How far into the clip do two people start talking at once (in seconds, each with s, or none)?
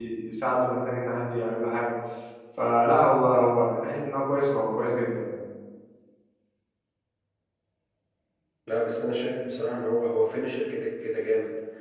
none